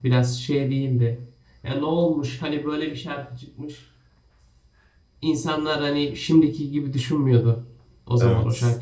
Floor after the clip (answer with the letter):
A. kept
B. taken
A